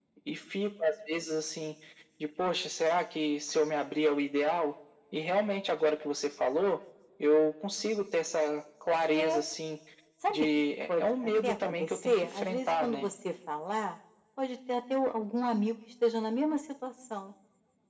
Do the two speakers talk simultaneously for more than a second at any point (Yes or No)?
Yes